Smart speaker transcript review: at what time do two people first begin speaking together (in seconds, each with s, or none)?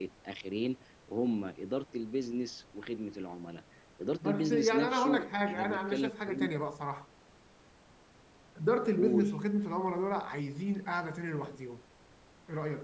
4.2 s